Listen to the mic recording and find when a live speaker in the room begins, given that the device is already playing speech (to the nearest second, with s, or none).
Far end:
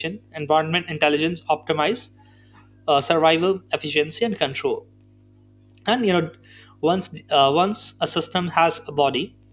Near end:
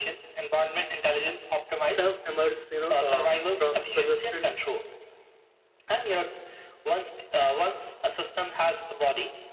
2 s